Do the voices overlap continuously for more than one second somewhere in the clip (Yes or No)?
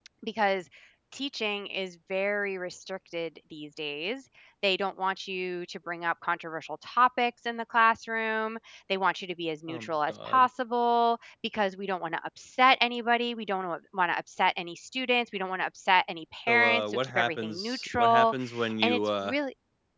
Yes